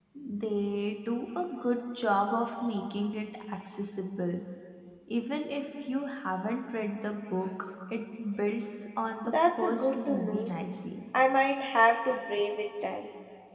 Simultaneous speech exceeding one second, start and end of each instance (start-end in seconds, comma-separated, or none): 9.2-10.5